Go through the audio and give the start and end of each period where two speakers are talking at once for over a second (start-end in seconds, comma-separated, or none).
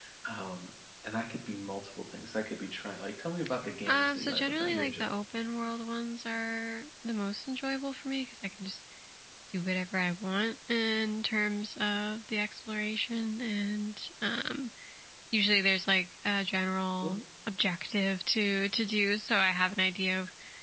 3.9-5.1